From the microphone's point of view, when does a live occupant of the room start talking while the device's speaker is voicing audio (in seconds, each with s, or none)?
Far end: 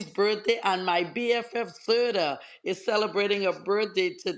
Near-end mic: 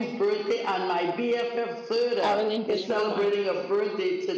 2.2 s